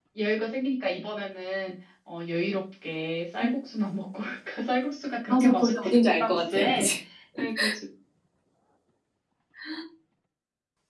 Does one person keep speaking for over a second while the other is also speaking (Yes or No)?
Yes